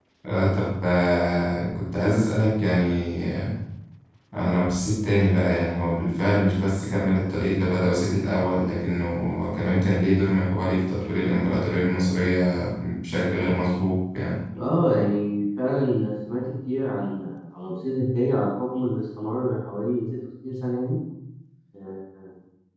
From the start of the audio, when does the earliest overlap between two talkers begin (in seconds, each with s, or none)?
none